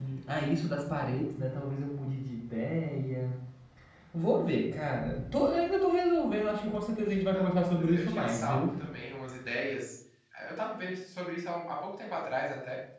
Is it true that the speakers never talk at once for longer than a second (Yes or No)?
No